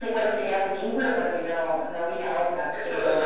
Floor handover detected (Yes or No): Yes